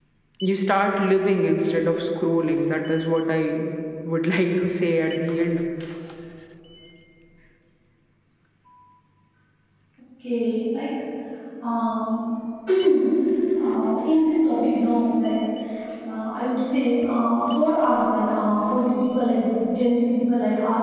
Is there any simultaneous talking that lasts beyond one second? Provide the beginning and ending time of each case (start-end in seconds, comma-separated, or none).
none